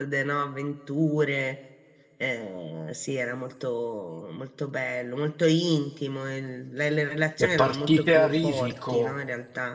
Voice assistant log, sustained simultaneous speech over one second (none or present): present